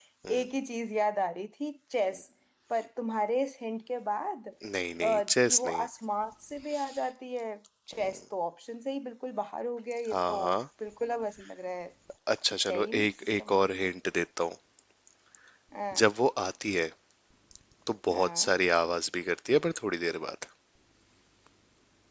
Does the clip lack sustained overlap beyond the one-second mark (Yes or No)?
No